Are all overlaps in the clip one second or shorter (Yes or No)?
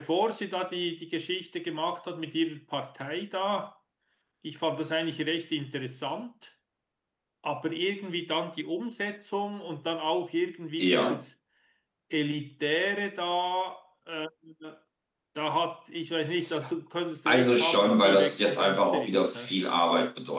No